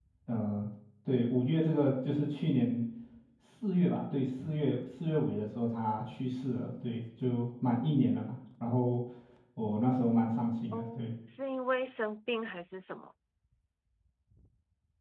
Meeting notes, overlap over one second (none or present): none